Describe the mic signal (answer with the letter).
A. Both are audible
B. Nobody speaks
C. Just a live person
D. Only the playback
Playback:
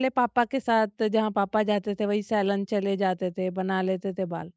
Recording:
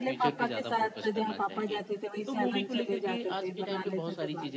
A